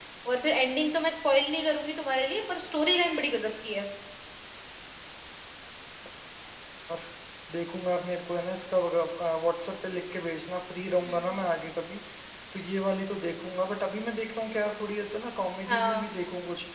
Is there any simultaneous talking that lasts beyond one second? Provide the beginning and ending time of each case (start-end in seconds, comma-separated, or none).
none